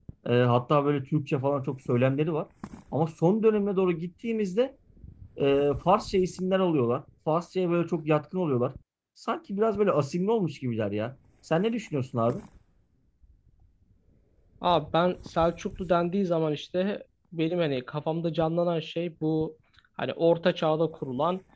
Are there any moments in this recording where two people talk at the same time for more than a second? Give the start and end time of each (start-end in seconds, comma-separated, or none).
none